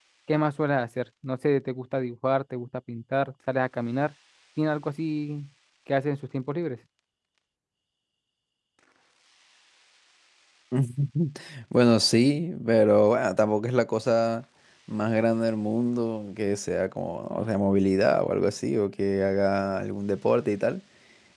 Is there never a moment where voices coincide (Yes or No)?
Yes